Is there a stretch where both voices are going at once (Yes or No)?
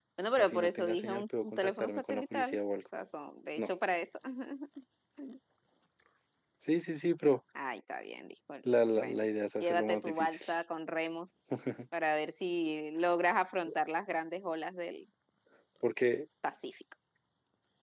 Yes